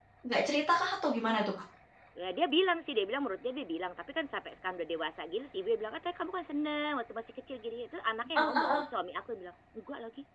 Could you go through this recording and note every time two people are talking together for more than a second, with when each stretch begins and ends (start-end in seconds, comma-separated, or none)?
none